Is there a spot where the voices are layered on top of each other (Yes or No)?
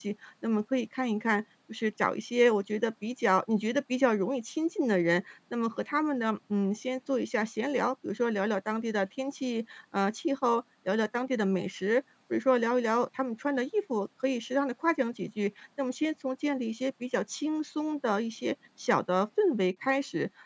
No